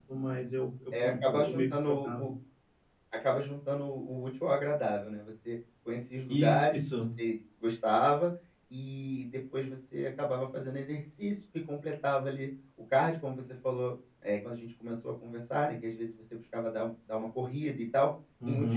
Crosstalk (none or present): present